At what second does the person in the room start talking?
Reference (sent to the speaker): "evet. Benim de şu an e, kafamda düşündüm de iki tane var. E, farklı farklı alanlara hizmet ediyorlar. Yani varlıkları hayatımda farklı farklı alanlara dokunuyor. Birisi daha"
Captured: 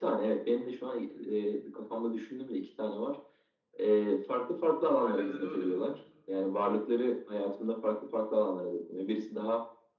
5.0 s

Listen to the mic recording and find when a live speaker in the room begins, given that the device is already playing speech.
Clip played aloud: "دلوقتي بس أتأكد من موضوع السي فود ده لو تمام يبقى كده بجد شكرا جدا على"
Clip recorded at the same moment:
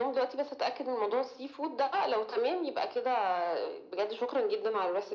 none

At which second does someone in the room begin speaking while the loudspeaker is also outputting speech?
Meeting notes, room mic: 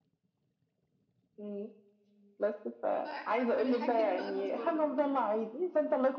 3.0 s

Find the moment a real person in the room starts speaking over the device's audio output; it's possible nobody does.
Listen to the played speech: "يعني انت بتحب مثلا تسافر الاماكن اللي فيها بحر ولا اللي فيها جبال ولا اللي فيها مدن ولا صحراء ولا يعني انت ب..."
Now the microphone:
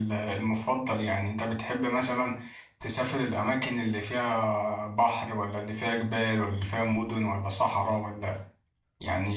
none

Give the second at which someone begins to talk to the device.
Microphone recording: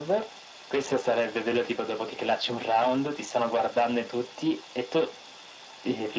none

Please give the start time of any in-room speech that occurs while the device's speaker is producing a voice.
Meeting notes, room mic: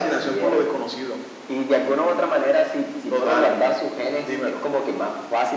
none

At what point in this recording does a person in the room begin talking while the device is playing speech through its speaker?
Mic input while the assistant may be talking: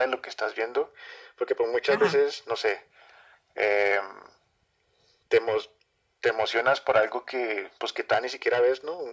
1.9 s

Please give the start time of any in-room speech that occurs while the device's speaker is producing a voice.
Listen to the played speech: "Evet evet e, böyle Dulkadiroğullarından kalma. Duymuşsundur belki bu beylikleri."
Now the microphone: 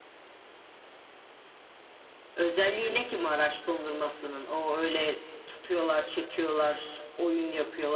2.4 s

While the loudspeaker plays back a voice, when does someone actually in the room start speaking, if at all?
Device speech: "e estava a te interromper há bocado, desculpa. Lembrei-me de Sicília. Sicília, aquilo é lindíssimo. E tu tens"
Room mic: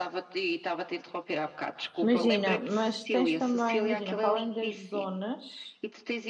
2.0 s

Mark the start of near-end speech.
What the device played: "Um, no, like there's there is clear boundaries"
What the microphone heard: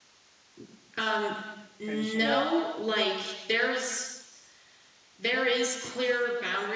1.8 s

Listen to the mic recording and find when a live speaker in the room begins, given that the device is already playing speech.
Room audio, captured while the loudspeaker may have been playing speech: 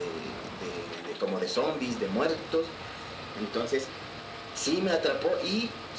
none

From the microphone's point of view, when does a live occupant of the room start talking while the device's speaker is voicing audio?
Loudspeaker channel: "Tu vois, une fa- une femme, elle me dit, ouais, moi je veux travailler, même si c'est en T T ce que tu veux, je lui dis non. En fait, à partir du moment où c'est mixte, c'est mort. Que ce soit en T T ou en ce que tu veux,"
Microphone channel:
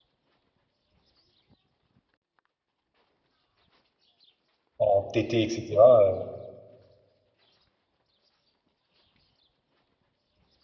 4.8 s

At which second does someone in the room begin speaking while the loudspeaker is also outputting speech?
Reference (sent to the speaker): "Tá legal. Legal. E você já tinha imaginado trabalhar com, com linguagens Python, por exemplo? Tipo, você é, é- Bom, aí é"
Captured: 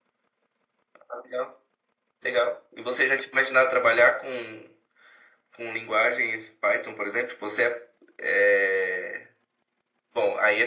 none

